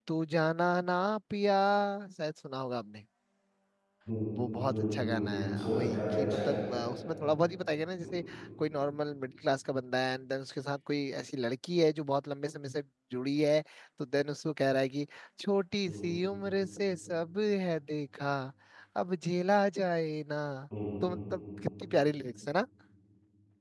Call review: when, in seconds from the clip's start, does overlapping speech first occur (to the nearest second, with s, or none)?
5 s